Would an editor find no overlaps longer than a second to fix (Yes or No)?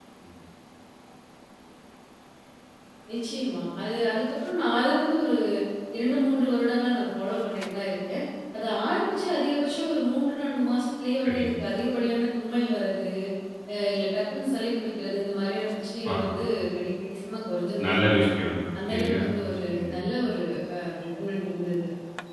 Yes